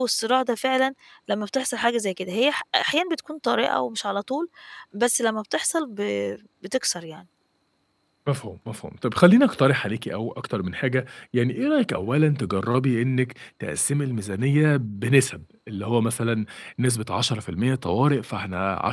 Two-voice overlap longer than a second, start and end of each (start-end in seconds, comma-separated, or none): none